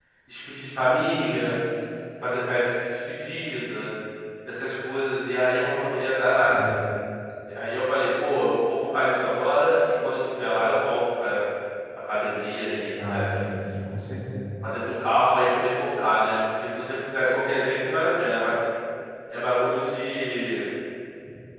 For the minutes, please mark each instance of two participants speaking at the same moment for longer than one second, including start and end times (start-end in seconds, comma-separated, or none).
none